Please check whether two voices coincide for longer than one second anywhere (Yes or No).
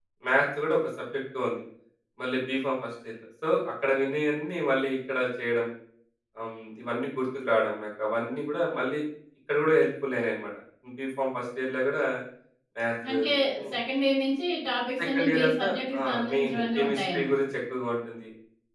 Yes